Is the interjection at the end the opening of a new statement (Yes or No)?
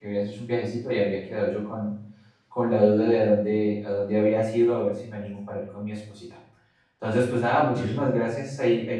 No